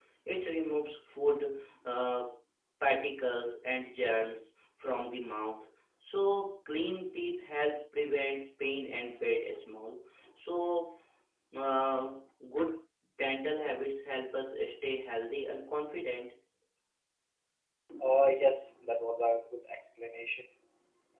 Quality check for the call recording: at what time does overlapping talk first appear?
none

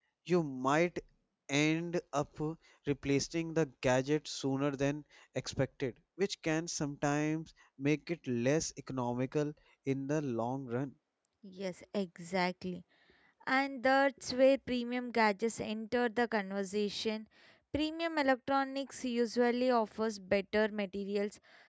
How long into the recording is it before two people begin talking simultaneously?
none

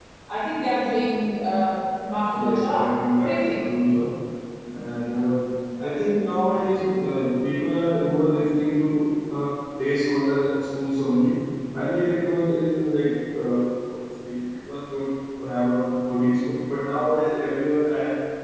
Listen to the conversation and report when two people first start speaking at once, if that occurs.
2.3 s

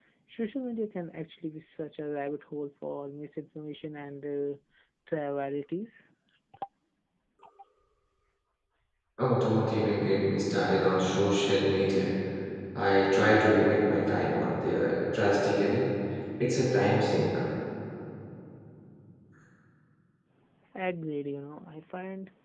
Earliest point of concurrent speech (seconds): none

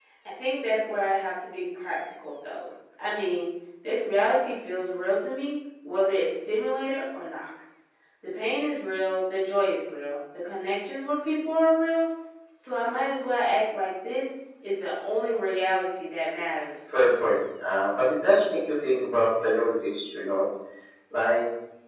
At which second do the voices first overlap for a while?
none

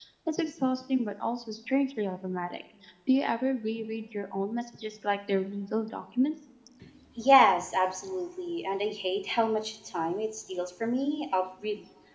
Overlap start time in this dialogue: none

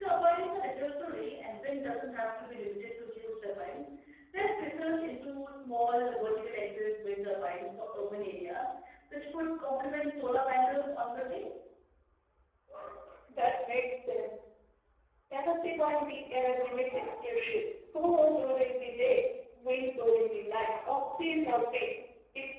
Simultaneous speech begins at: none

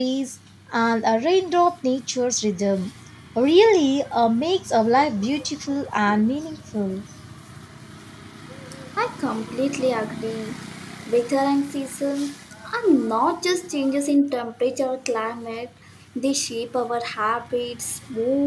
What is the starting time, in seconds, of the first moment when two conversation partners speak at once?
none

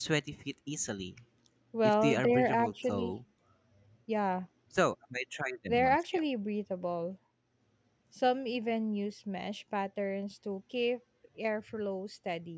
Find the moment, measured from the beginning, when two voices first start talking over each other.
1.8 s

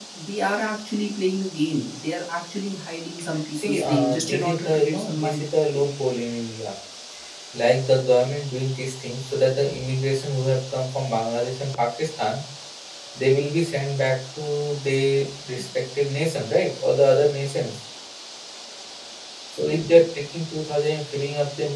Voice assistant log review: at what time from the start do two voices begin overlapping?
3.5 s

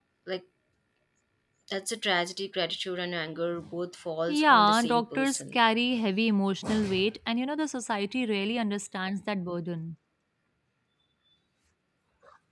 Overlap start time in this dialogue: 4.3 s

